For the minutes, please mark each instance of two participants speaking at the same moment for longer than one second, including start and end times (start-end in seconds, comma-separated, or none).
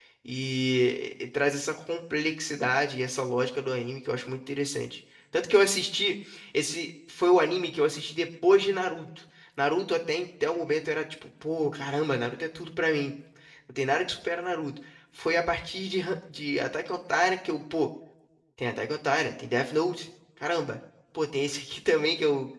none